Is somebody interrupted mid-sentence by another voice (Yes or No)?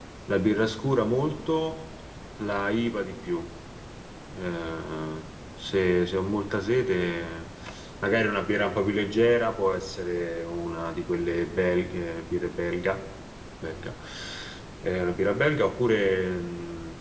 No